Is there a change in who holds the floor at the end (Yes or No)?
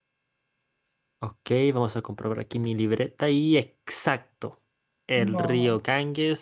No